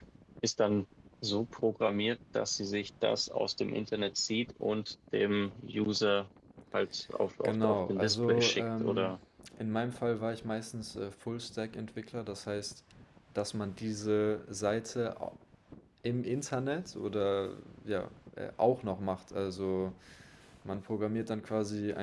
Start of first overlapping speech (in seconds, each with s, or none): 7.4 s